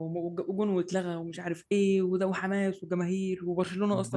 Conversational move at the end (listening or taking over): taking over